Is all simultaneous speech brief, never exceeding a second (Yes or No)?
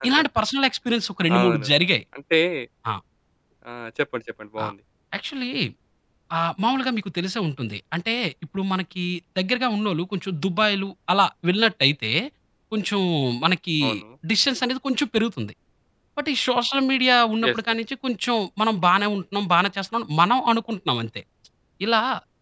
Yes